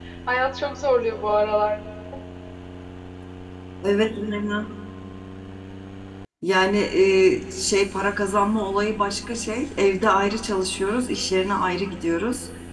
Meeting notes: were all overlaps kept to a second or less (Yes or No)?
Yes